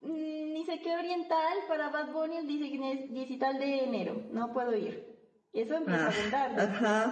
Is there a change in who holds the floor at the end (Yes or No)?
Yes